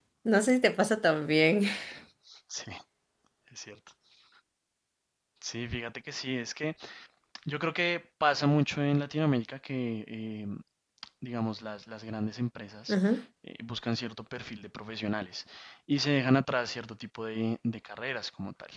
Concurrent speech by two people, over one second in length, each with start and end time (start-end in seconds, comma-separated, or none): none